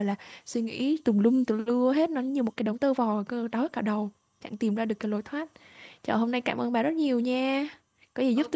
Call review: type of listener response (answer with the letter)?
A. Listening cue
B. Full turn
B